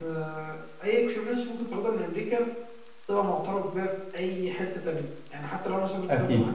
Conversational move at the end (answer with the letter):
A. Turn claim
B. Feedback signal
B